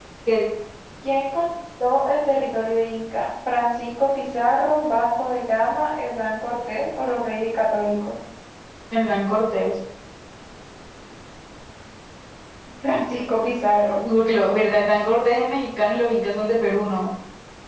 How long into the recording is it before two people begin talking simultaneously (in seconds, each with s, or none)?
none